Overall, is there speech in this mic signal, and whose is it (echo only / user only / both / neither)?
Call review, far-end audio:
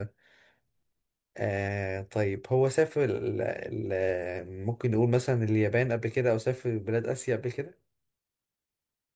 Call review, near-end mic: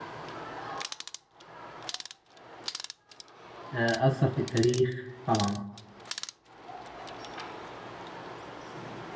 user only